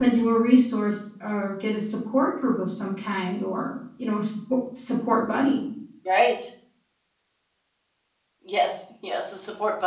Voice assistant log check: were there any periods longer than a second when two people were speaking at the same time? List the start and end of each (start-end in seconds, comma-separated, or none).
none